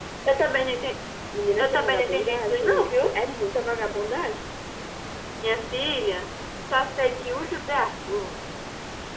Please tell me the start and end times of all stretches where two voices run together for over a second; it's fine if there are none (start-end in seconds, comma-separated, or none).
1.6-3.2